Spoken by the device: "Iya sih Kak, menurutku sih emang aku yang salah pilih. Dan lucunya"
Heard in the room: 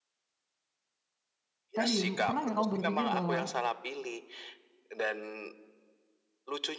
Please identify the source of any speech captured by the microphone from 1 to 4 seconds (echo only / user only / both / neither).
both